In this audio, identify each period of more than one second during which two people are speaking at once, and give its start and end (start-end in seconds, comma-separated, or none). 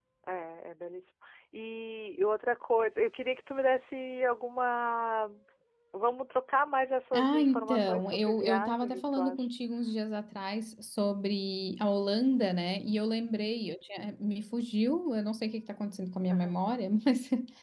7.1-9.5